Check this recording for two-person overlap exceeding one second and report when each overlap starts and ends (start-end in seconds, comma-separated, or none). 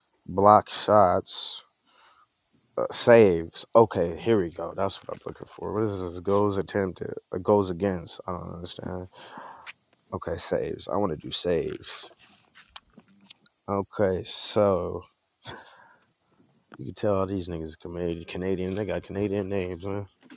none